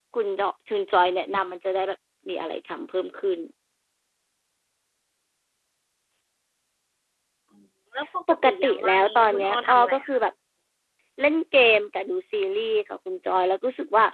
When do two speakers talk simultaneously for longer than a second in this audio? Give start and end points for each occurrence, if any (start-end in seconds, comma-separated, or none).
8.4-10.2